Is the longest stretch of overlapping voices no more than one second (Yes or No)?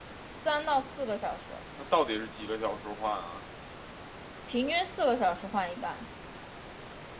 Yes